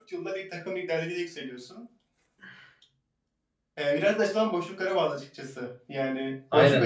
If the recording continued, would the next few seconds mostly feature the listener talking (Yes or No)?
No